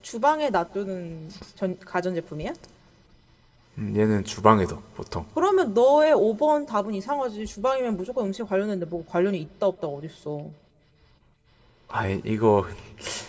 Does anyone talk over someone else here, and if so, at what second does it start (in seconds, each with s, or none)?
none